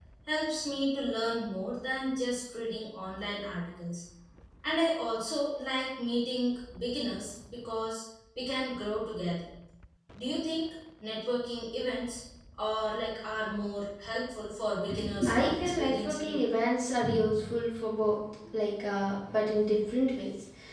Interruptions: present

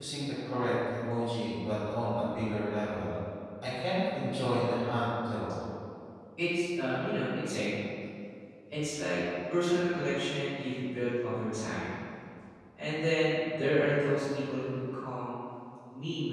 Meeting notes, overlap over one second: none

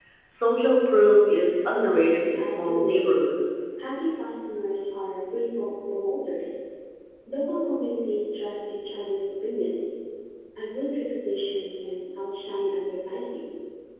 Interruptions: present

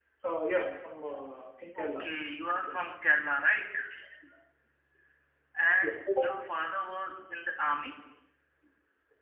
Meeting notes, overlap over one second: none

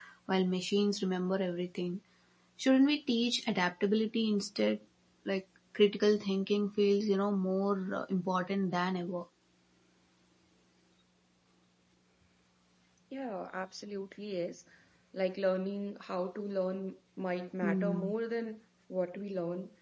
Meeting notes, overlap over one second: none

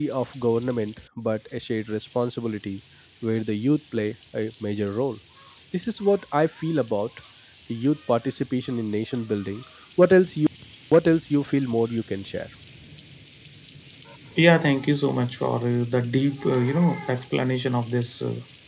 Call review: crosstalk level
none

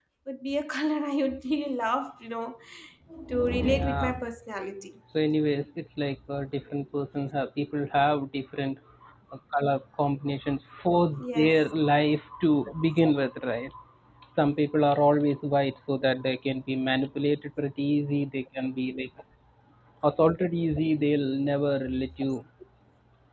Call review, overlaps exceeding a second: none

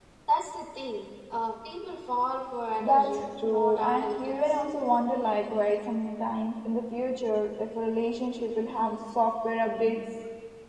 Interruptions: present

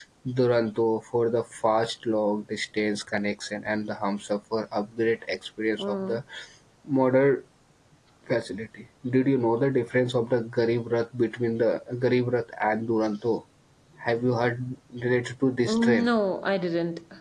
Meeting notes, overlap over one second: none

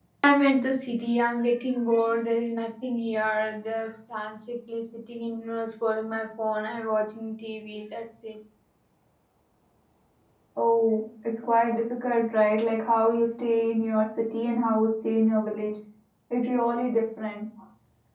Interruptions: none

